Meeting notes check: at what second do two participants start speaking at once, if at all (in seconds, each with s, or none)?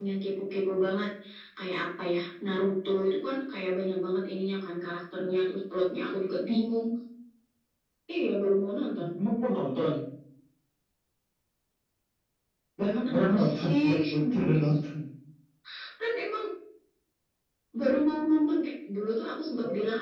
12.8 s